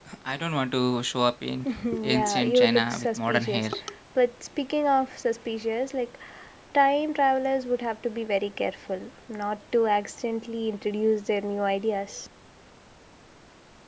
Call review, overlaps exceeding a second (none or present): present